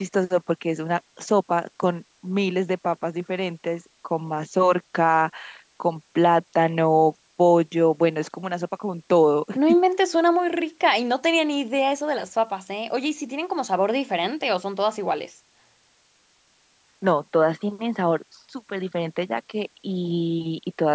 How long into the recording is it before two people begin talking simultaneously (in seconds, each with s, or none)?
none